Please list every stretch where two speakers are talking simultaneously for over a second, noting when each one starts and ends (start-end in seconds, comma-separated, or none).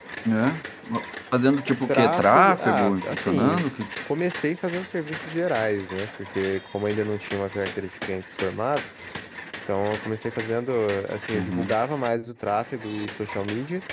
1.9-3.6